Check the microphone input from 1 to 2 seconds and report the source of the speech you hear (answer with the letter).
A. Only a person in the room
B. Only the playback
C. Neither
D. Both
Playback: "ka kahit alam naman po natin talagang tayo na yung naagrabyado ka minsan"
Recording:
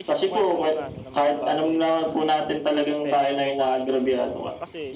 D